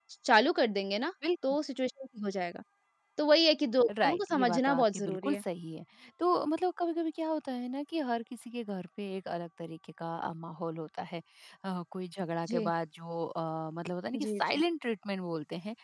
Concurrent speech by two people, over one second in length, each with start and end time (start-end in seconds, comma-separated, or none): 4.0-5.4